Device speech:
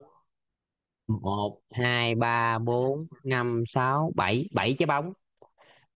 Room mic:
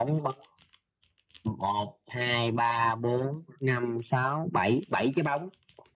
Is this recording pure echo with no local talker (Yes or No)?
Yes